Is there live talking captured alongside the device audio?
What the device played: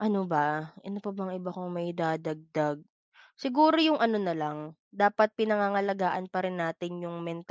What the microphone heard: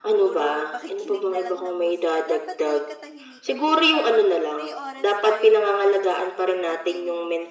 Yes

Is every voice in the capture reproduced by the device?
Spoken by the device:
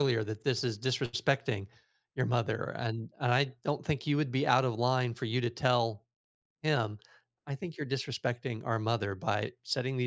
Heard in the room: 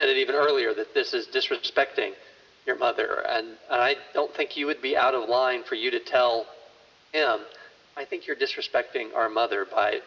Yes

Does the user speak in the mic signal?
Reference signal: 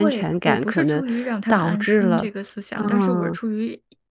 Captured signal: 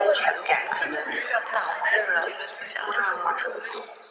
No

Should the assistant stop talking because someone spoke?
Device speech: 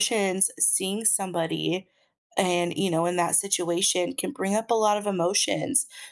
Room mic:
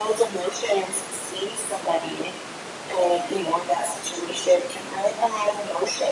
No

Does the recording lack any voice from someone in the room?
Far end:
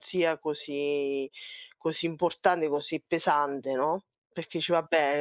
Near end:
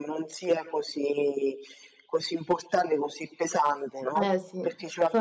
No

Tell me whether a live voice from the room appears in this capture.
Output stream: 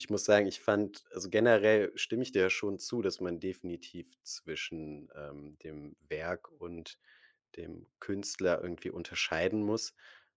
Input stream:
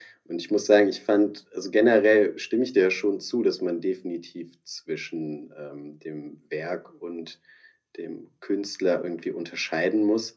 No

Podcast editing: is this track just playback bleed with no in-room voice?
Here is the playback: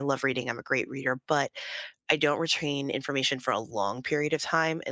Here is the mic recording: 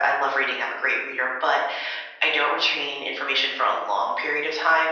Yes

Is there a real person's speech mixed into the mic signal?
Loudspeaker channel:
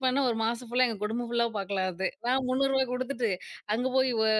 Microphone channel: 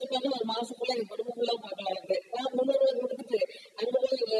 No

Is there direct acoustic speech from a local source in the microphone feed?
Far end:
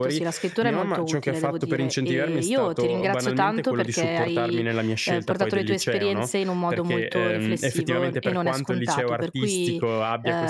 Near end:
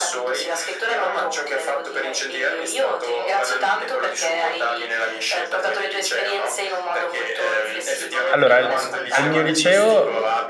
Yes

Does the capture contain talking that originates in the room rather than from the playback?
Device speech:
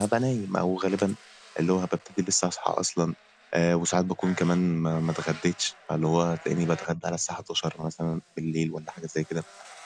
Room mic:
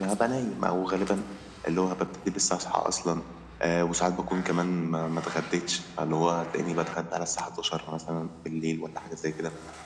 No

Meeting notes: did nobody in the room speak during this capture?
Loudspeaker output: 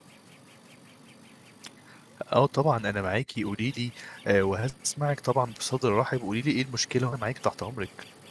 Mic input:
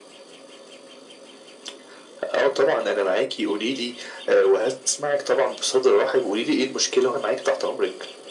Yes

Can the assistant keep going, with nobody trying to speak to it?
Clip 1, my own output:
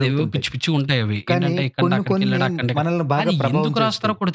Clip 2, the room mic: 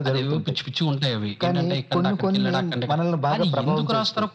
Yes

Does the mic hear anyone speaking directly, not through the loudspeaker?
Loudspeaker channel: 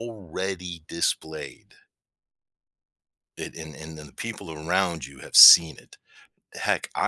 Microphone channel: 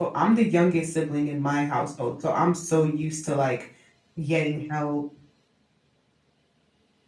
Yes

